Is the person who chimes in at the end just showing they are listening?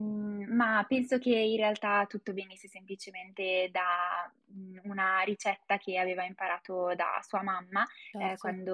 Yes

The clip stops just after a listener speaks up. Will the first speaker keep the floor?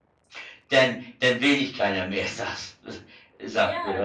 No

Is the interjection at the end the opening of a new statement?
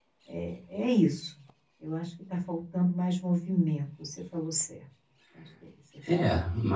Yes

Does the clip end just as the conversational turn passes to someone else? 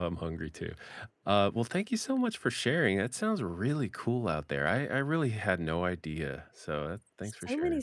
Yes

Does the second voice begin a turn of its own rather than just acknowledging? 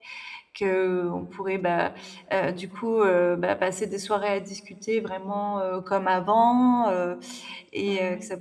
No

